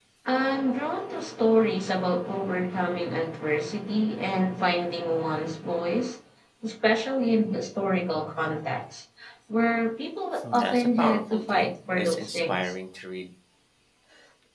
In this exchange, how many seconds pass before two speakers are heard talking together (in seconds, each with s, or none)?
10.4 s